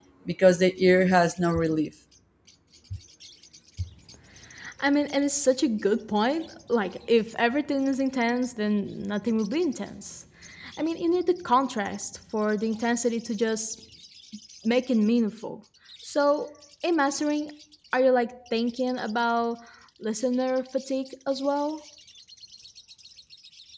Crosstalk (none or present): none